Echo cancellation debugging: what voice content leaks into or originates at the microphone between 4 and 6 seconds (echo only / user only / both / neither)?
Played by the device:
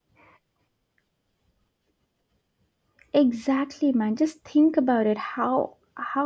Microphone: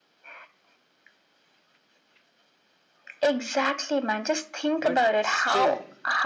both